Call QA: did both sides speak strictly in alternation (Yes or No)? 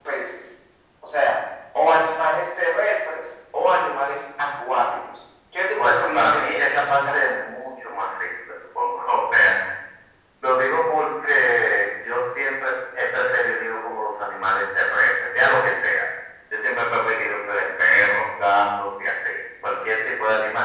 No